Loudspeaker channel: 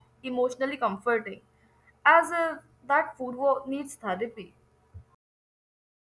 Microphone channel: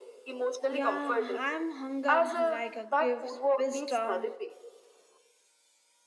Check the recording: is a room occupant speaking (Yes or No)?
Yes